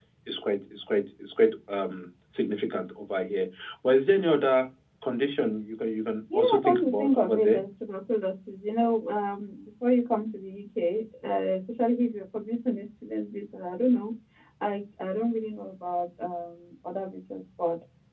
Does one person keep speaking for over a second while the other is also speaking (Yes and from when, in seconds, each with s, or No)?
Yes, from 6.3 s